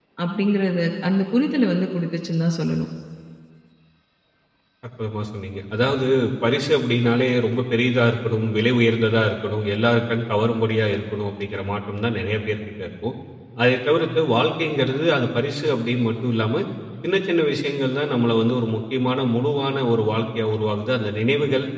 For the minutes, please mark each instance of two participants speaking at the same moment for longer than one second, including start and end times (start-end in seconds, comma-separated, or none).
none